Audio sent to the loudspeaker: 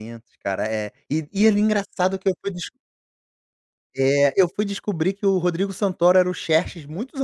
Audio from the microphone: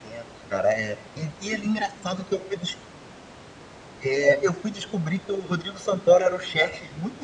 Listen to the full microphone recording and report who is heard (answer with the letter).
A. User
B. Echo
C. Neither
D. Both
B